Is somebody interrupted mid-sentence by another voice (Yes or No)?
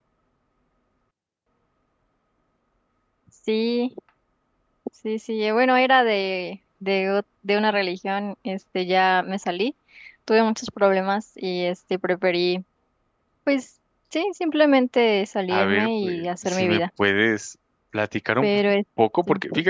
Yes